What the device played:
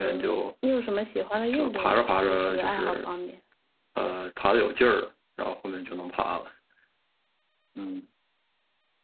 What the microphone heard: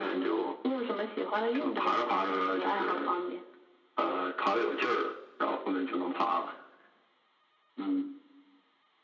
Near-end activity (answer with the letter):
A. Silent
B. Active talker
A